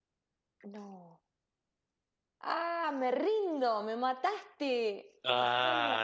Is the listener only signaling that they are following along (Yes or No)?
No